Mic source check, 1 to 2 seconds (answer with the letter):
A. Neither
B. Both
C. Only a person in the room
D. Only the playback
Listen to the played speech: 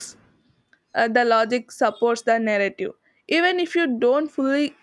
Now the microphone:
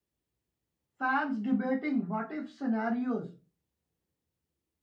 C